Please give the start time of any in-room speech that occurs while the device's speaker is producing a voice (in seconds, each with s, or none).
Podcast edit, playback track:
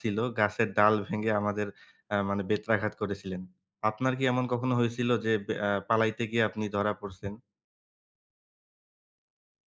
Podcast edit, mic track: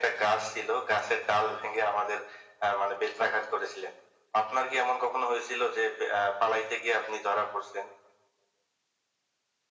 none